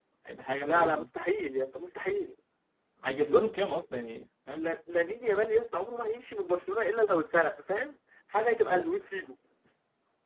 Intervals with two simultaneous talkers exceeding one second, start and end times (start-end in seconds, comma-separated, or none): none